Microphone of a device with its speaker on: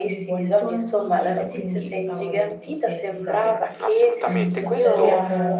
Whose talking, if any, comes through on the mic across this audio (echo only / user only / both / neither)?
both